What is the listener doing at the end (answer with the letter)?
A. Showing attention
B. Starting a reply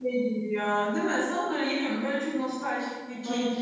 B